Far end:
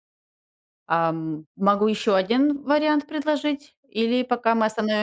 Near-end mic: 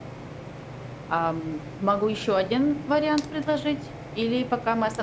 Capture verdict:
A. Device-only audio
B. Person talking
A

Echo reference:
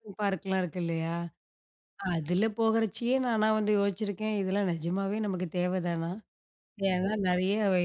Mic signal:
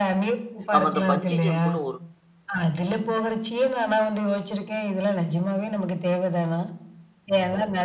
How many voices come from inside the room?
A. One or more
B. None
A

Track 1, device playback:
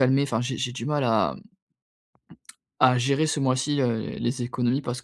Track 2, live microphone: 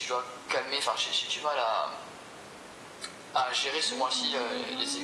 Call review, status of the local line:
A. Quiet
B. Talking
B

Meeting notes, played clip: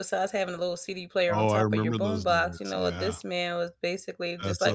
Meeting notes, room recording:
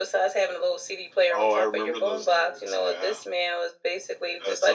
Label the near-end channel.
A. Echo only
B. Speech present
A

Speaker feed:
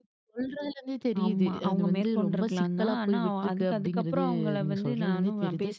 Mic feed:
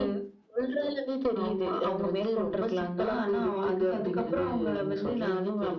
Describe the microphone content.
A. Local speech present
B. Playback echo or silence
B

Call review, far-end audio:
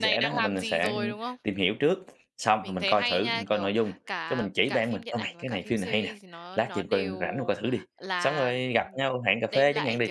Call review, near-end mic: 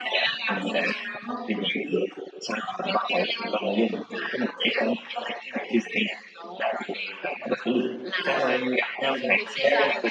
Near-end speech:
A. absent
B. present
B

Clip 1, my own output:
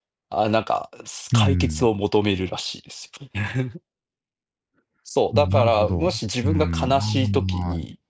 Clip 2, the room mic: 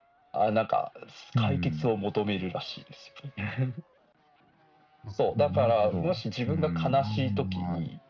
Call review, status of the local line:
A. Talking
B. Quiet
A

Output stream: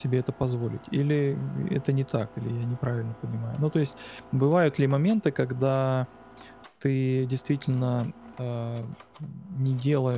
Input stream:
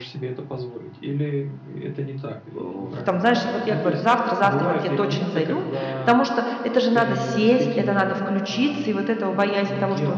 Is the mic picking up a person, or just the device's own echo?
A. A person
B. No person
A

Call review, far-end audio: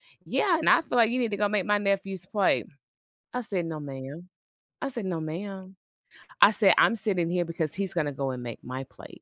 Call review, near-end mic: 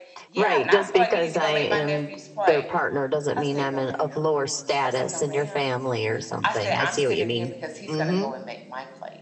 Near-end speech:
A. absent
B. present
B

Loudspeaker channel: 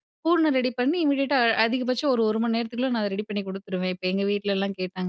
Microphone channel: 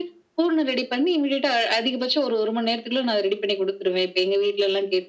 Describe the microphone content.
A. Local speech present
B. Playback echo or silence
B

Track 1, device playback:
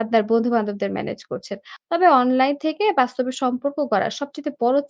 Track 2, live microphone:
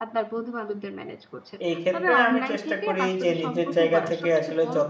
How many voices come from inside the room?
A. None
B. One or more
B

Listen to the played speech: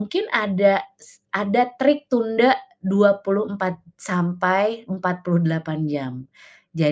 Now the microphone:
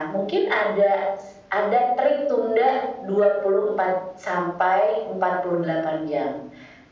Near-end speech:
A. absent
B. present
A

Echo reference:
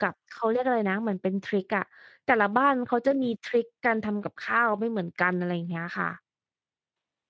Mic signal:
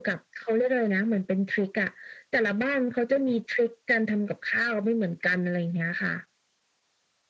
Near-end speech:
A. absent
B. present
A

